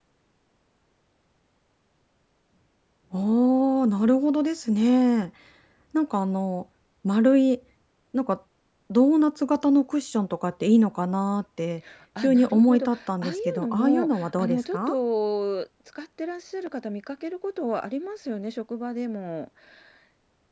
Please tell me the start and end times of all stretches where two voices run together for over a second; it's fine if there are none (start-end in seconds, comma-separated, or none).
12.2-14.9